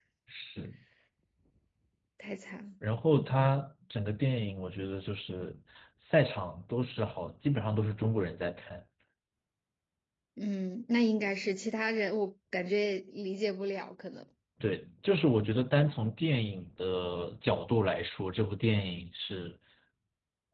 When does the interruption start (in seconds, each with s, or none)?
none